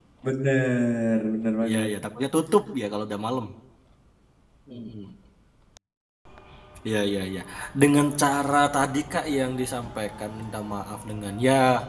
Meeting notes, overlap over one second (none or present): none